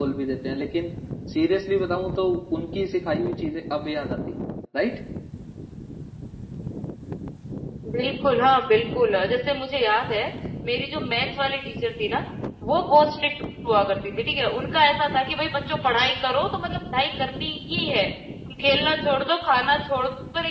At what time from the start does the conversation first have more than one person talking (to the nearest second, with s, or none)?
none